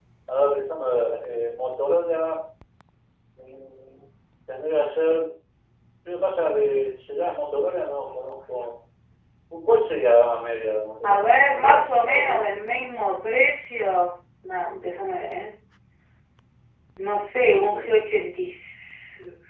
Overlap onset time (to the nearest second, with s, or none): 11 s